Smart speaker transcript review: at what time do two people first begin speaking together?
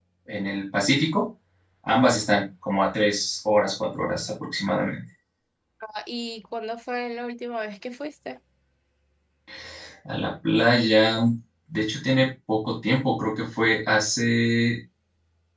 none

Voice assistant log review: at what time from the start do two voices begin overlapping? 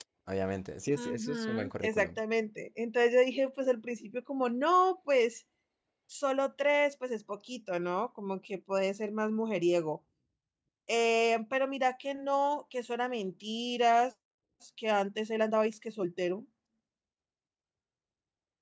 1.0 s

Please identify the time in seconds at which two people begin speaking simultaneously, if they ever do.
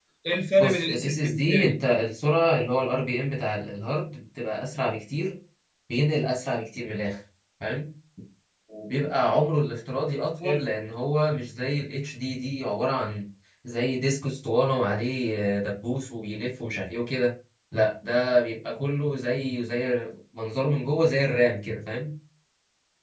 0.6 s

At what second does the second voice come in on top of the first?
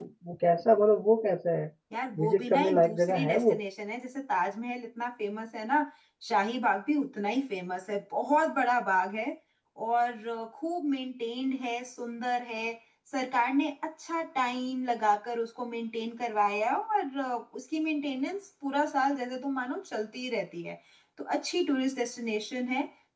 2.2 s

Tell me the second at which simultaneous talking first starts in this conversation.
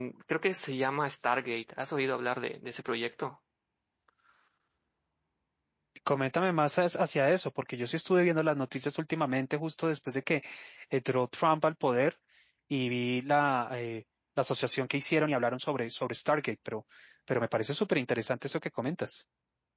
none

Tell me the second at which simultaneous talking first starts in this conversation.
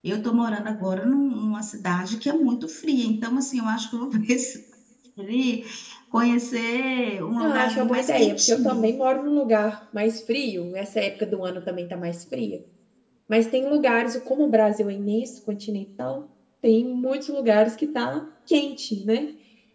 7.4 s

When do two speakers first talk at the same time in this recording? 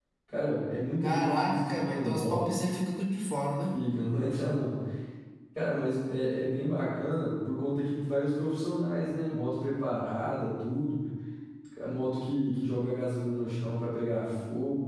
1.0 s

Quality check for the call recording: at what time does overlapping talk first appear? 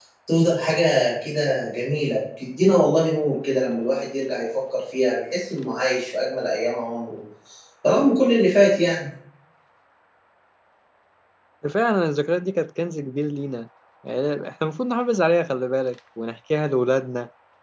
none

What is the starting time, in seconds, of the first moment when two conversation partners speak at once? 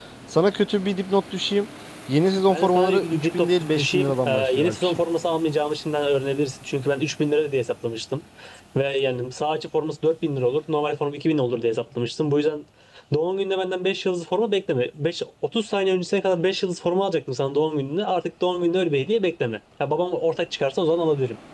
2.5 s

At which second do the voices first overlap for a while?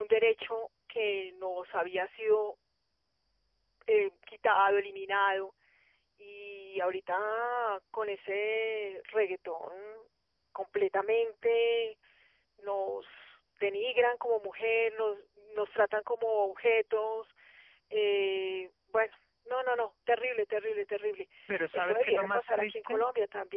21.7 s

